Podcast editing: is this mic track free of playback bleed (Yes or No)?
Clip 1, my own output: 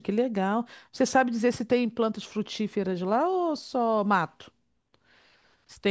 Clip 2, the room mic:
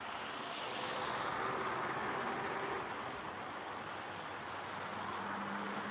Yes